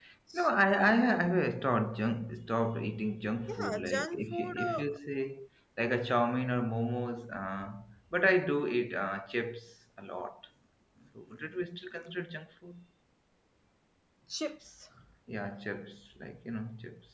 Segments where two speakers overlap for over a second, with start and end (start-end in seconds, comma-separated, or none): 3.5-5.0